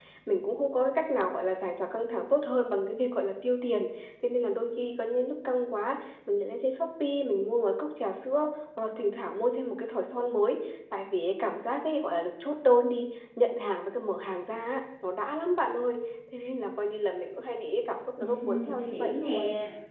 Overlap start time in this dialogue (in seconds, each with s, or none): 18.2 s